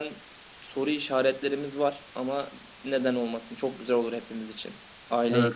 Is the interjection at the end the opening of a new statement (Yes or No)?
Yes